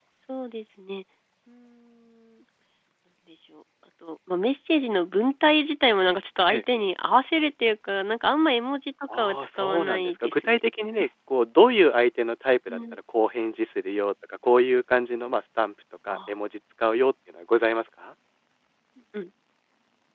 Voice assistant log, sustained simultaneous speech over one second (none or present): present